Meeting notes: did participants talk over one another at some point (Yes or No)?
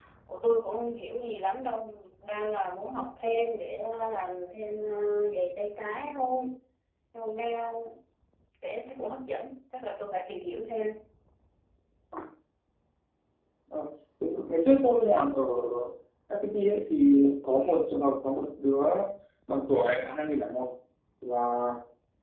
No